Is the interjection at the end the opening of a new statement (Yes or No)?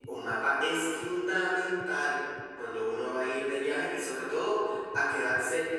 No